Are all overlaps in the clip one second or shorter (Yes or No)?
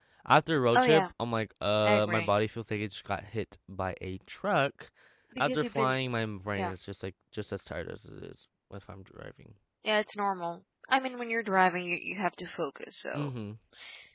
Yes